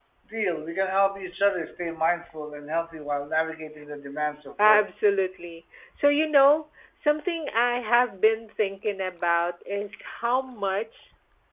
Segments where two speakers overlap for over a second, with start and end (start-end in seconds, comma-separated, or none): none